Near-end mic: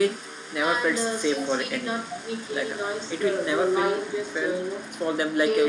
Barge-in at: none

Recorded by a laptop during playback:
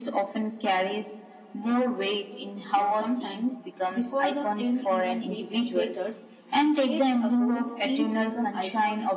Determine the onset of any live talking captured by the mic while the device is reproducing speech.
2.7 s

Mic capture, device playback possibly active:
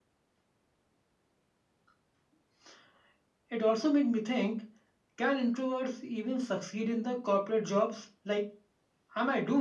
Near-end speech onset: none

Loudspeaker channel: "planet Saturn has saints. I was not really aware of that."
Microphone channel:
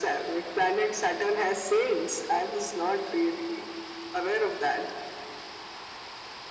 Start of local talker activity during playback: none

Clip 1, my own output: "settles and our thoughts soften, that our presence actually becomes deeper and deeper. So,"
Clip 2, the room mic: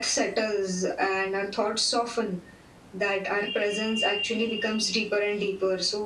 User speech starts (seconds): none

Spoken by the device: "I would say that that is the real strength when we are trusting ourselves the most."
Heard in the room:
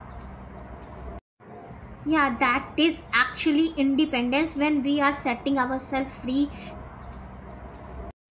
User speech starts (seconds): 2.0 s

